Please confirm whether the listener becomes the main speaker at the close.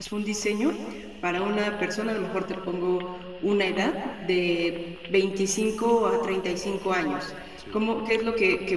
No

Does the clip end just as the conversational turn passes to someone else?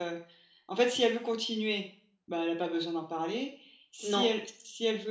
No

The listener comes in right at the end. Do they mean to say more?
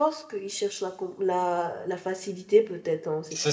Yes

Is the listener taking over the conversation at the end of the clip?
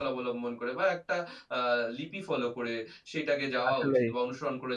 No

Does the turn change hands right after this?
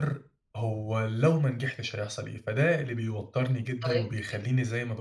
No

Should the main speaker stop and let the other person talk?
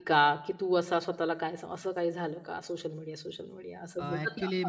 Yes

